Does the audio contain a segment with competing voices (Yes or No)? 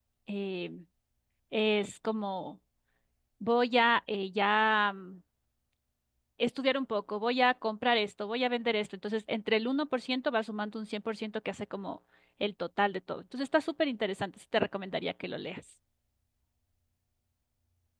No